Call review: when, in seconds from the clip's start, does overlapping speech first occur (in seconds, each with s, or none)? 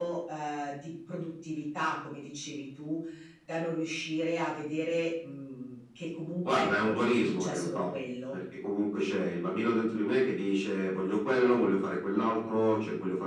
6.4 s